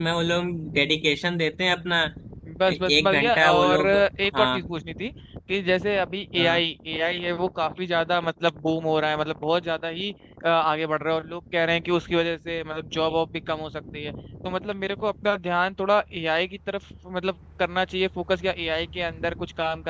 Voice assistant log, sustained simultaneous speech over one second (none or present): present